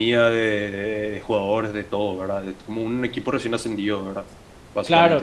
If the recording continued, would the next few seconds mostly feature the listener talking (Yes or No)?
Yes